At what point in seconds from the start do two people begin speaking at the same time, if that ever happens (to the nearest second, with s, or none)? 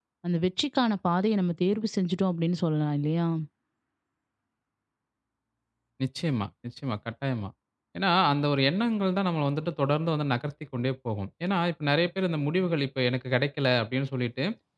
none